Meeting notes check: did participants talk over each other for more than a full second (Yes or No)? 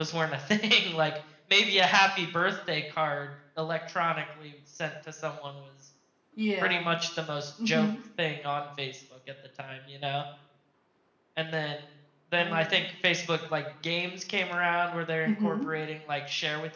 No